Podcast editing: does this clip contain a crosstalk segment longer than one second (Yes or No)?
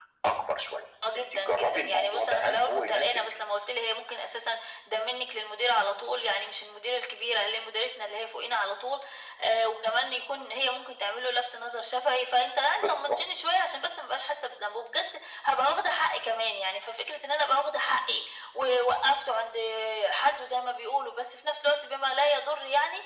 Yes